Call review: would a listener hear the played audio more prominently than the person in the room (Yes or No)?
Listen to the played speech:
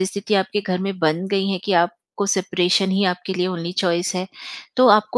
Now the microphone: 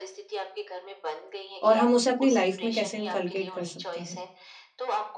No